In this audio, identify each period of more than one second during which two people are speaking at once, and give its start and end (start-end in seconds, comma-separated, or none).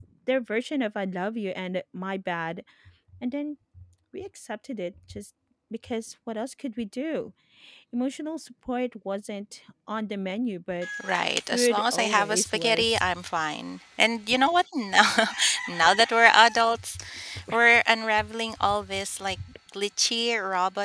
11.5-13.0